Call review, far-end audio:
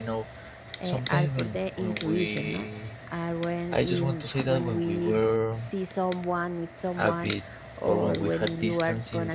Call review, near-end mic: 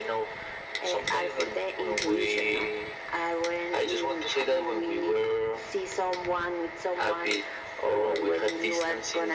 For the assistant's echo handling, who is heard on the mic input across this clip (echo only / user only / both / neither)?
echo only